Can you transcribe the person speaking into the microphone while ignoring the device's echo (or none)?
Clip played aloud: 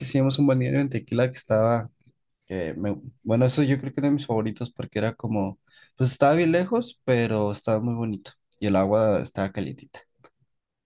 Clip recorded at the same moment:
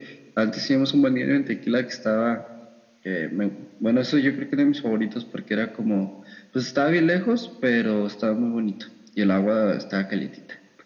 none